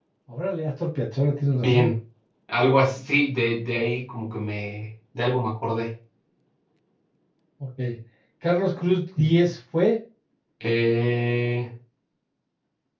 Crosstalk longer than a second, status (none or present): none